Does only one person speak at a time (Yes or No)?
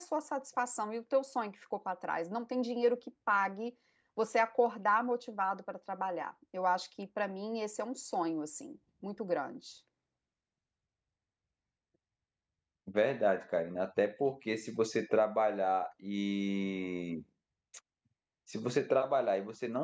Yes